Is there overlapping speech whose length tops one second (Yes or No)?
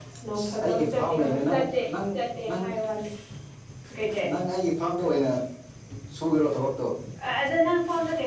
Yes